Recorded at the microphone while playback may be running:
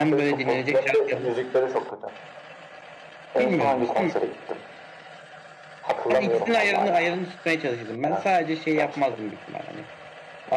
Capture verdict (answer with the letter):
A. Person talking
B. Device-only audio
A